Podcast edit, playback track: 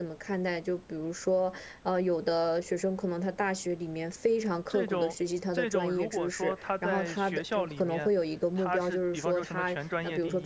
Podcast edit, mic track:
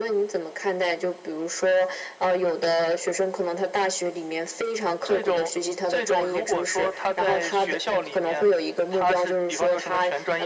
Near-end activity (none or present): none